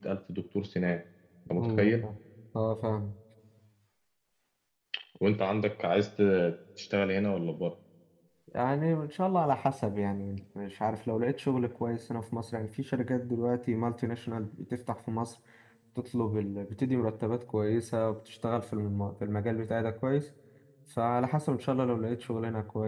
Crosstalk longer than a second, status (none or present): none